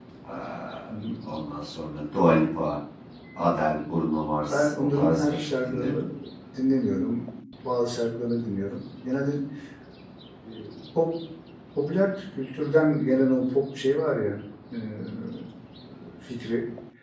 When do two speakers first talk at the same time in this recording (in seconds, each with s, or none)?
4.5 s